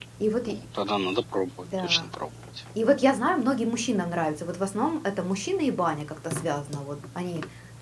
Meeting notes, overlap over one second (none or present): none